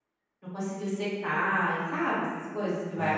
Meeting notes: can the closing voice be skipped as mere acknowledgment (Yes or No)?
No